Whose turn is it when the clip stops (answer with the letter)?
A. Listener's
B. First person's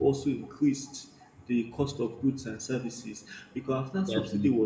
B